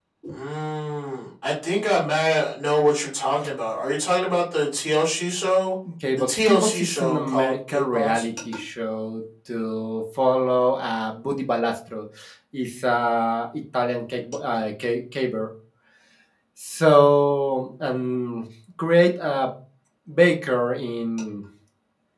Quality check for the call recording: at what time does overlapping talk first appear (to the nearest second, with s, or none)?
6 s